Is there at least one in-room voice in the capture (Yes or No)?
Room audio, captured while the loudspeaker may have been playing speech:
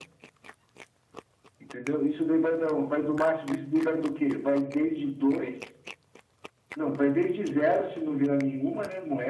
No